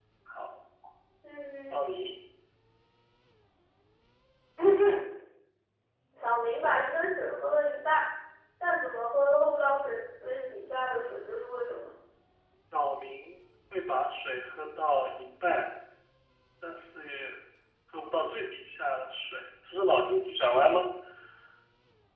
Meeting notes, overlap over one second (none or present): none